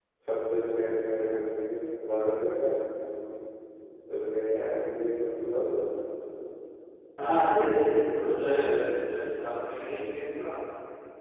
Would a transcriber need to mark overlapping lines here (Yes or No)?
No